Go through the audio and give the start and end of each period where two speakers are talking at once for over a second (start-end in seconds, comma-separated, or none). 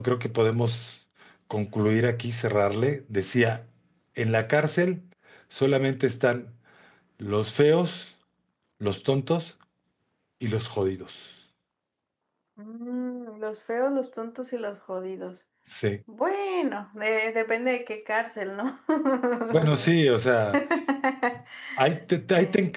none